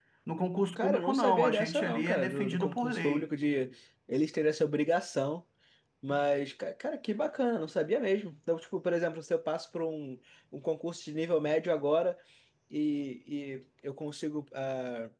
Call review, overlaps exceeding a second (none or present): present